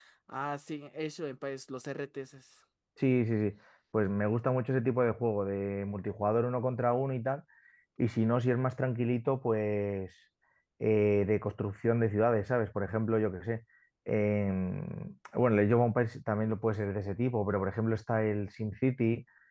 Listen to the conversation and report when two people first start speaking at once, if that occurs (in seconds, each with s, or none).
none